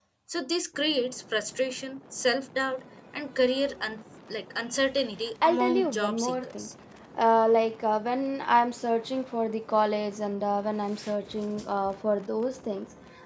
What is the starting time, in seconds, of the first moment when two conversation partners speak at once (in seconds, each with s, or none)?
5.4 s